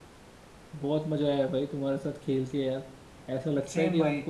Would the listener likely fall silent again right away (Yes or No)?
Yes